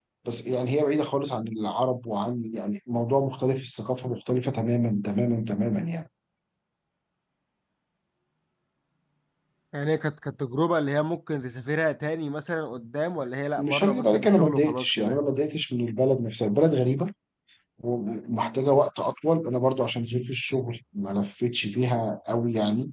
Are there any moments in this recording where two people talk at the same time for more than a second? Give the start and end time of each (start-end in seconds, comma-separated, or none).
13.6-15.2